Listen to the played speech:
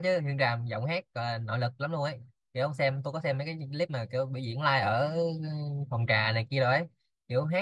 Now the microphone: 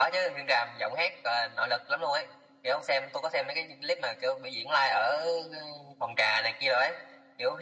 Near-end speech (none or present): none